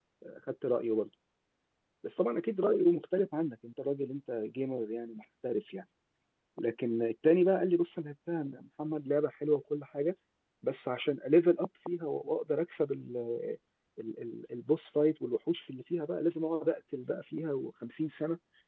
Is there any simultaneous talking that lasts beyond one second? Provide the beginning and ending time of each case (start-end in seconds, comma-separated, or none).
none